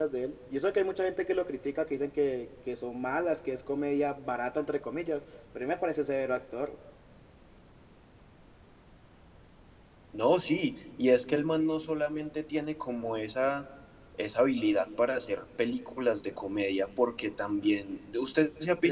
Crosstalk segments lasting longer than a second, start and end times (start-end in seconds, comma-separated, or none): none